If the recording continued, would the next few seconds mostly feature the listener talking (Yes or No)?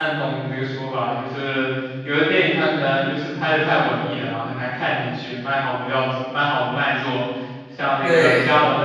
No